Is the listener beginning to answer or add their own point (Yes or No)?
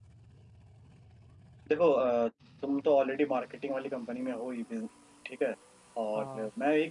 No